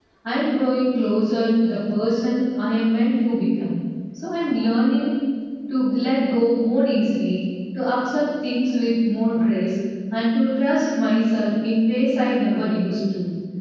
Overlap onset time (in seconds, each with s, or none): none